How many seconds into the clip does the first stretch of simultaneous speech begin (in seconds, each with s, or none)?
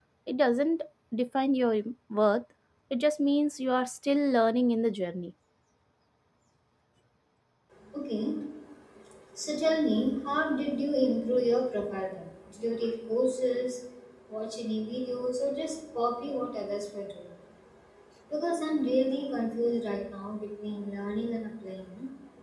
none